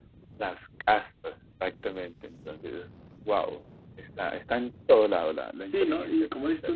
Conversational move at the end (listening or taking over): taking over